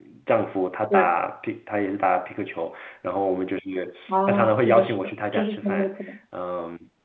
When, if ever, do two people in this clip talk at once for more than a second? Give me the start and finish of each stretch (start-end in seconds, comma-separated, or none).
4.1-5.9